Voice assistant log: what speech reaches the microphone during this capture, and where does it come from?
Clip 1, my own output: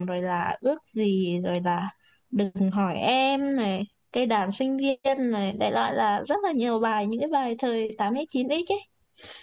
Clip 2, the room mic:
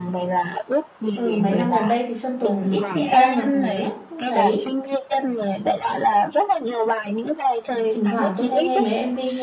both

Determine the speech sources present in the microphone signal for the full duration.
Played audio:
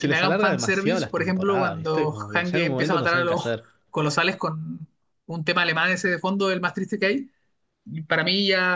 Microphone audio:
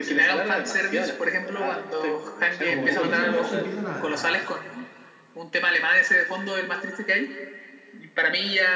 both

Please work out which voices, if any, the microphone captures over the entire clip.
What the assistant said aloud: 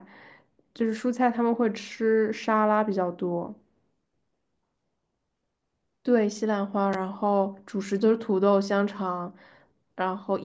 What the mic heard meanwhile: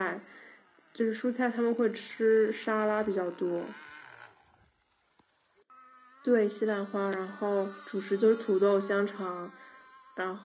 echo only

